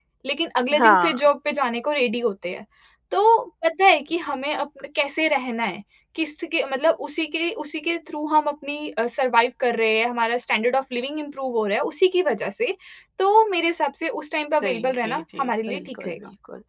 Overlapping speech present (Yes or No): Yes